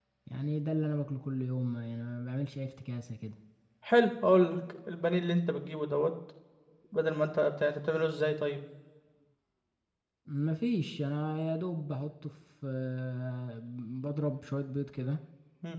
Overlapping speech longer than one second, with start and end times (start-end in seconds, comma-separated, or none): none